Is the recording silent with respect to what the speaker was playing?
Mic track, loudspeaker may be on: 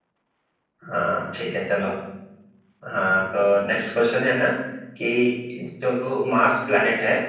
Yes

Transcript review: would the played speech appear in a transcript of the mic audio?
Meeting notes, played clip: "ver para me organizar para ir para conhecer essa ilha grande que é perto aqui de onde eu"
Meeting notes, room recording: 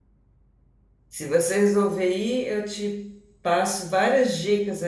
No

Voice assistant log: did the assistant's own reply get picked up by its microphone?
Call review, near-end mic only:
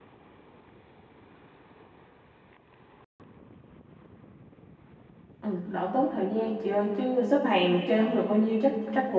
No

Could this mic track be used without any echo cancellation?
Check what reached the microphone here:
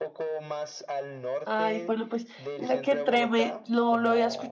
No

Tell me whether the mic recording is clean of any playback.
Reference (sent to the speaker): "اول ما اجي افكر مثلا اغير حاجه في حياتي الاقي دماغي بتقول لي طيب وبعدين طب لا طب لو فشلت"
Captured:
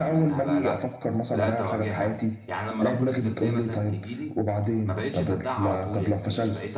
No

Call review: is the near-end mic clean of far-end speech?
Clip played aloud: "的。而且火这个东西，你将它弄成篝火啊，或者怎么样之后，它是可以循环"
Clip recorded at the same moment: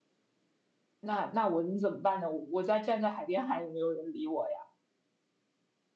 Yes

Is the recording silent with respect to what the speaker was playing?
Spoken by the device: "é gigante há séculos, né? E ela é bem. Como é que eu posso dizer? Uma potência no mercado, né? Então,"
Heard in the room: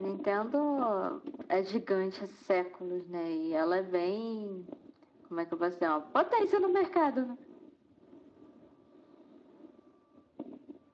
No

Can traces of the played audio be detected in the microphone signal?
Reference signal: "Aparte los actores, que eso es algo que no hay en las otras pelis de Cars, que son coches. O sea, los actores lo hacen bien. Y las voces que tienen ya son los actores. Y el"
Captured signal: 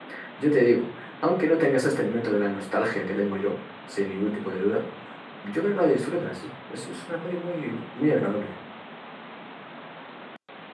No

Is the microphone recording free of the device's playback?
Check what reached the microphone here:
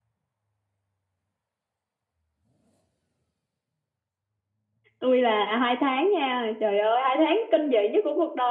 Yes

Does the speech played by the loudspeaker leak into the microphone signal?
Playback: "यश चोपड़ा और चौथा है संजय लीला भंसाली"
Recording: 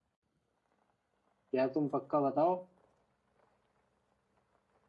No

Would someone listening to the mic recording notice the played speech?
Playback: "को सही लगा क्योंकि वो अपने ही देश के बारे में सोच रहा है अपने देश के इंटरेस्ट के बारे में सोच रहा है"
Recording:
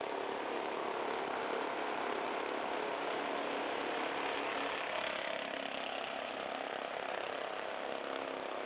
No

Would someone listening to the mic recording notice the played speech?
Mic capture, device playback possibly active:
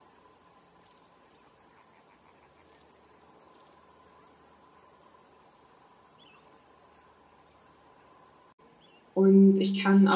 No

